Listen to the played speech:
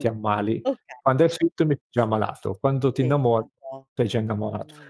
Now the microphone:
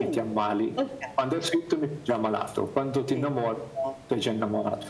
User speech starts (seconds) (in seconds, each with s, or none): none